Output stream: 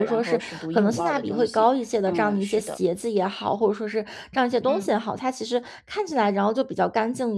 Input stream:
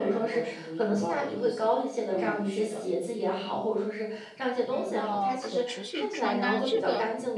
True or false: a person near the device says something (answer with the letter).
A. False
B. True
B